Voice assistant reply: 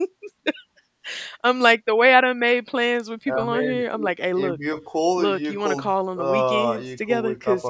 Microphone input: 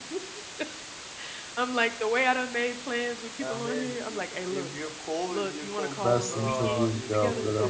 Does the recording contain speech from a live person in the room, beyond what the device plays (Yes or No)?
Yes